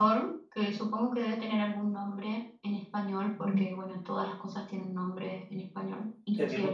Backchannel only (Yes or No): No